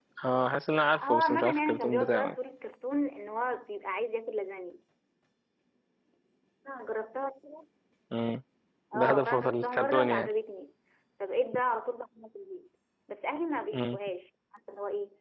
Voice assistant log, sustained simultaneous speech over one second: present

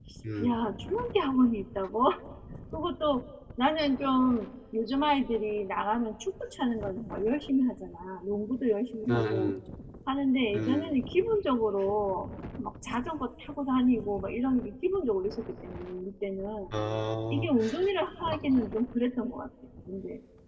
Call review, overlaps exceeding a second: none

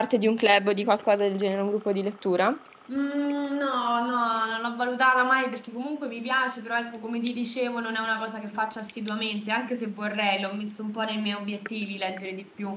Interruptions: none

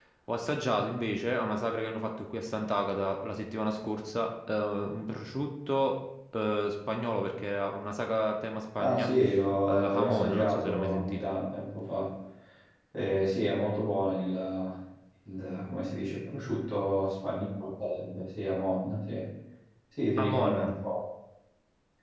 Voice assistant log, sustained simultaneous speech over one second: present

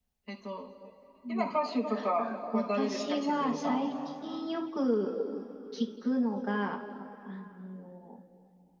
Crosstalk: present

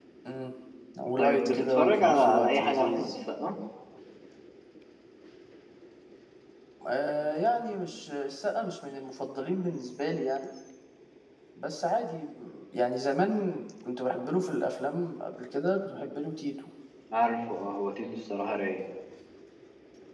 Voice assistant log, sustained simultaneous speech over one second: present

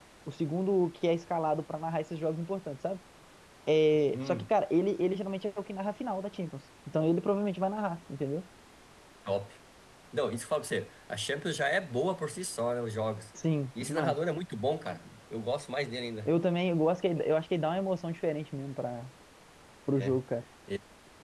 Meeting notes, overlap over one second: none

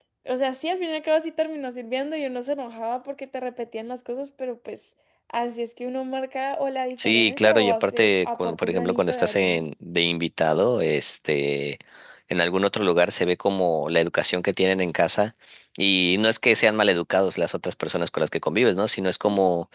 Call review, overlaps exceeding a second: present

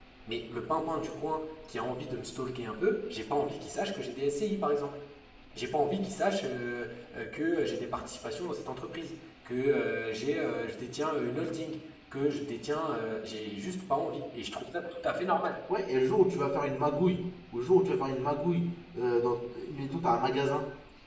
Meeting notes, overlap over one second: none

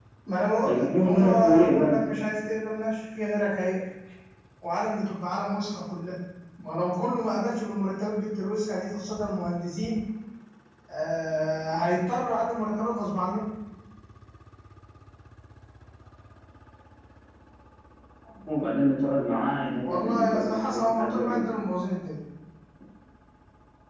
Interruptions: present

